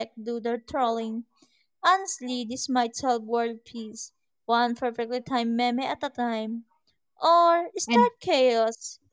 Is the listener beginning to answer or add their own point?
No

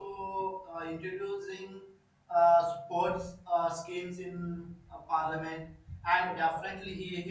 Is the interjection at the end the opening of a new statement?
No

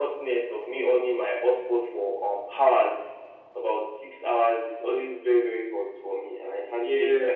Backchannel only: No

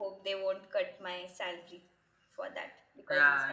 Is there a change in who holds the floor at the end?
Yes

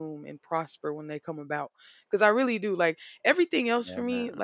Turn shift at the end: No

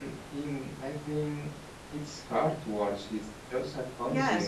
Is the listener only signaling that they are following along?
No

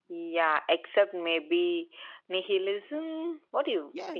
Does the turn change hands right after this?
Yes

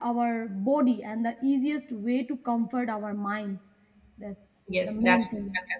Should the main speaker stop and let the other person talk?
Yes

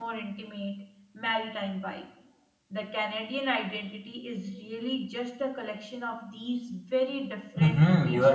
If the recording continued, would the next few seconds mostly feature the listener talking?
Yes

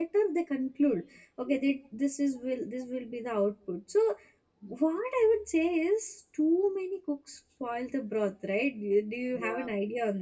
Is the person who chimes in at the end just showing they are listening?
Yes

